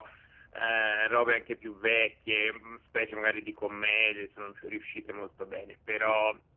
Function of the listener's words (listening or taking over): listening